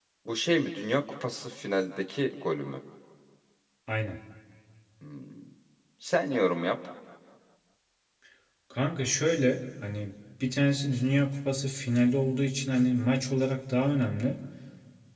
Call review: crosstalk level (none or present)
none